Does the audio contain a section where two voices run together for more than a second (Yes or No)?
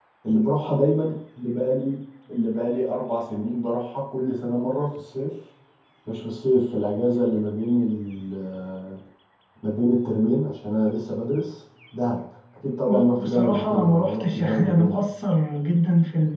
Yes